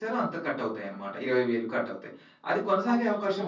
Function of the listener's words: listening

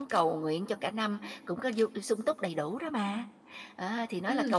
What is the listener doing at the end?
taking over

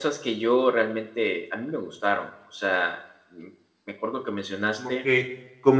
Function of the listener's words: taking over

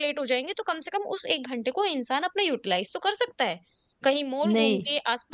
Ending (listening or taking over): listening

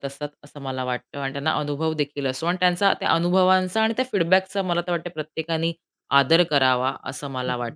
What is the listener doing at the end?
taking over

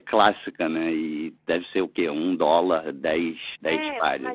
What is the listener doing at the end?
taking over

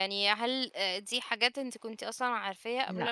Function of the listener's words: listening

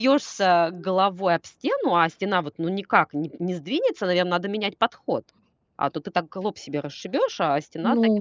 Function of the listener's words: taking over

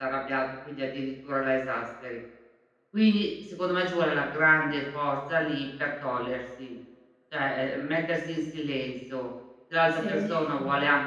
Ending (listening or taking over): listening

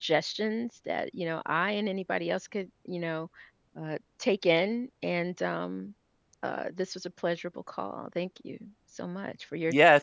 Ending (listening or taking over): taking over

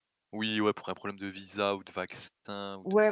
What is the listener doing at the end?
taking over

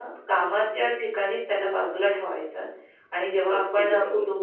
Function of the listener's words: listening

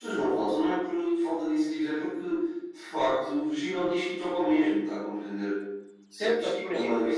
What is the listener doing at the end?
taking over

